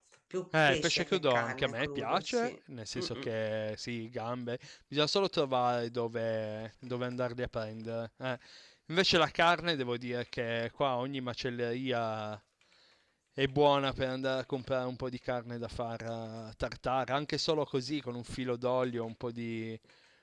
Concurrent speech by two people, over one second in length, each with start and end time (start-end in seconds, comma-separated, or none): 0.7-2.5